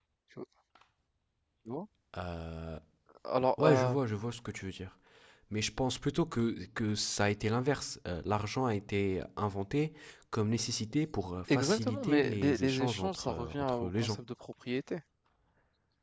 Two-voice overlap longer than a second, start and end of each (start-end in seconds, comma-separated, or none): 11.5-14.2